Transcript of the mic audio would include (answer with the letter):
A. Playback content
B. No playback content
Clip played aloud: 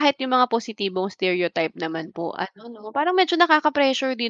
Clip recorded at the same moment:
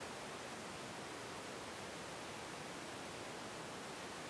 B